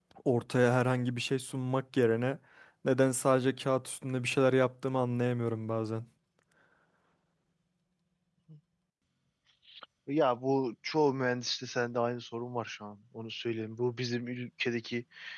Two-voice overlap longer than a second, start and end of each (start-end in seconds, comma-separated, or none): none